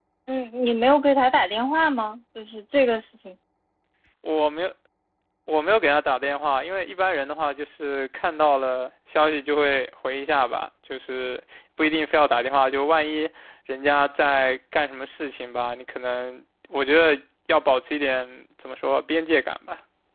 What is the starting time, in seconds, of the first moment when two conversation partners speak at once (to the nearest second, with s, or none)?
none